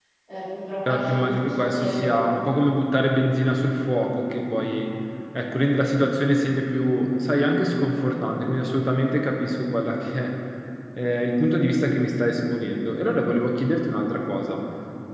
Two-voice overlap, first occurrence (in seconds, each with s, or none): 0.9 s